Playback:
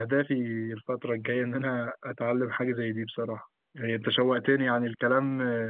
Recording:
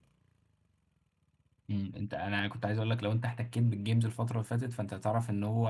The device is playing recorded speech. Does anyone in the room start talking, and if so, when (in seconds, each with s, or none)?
1.7 s